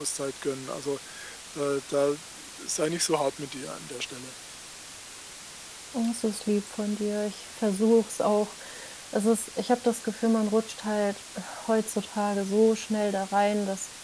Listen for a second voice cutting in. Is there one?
No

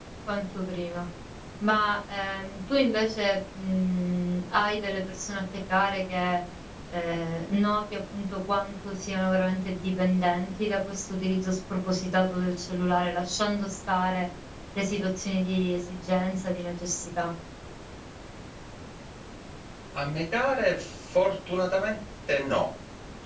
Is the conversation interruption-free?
Yes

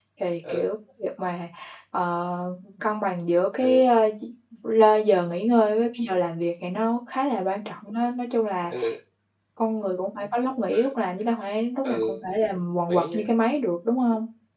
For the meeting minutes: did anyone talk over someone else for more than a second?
No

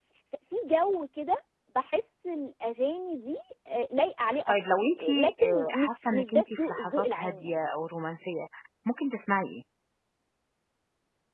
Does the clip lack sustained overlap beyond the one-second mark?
No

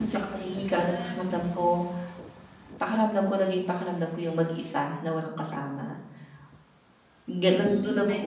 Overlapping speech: Yes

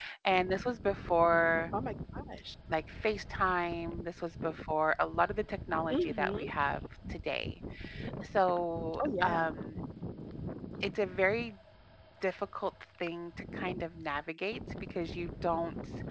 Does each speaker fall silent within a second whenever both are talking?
Yes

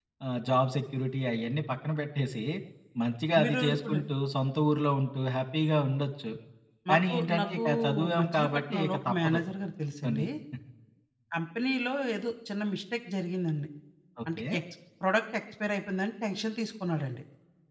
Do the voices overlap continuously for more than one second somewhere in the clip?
Yes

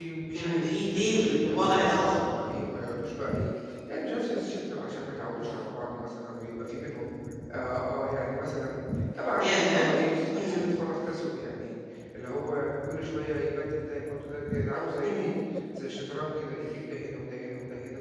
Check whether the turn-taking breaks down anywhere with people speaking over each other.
Yes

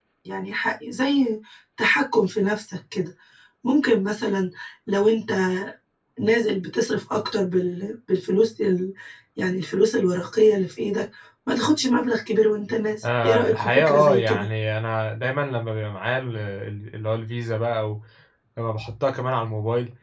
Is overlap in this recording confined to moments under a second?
No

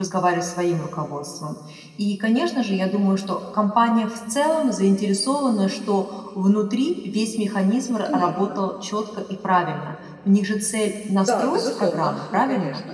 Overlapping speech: Yes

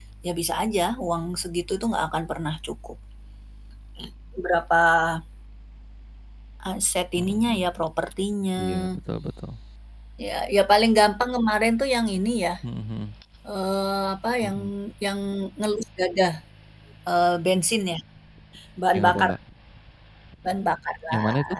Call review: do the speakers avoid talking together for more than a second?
Yes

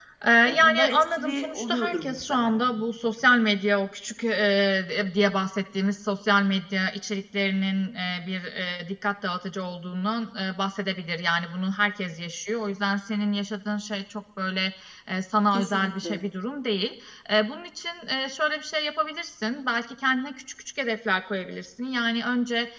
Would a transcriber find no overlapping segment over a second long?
No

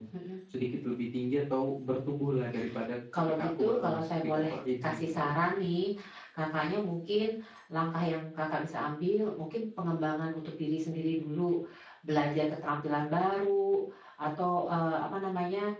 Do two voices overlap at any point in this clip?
Yes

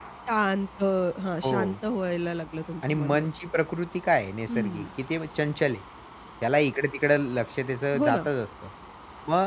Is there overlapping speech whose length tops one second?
No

